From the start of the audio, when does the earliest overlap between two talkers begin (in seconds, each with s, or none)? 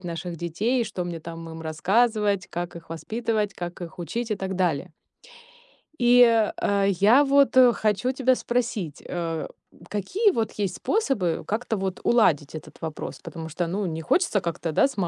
none